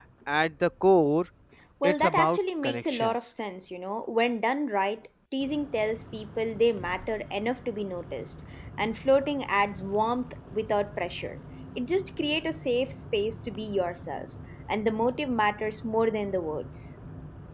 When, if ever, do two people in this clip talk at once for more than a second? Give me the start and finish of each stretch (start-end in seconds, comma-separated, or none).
1.8-3.3